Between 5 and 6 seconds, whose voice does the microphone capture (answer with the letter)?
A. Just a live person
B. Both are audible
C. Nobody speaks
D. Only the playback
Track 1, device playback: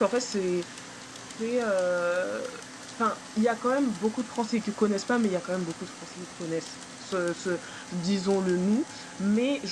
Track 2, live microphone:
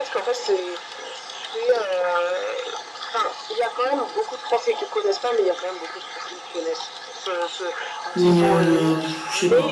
D